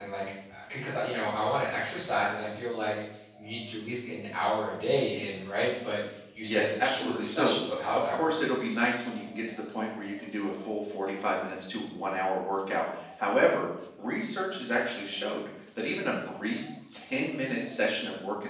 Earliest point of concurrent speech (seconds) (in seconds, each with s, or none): 6.4 s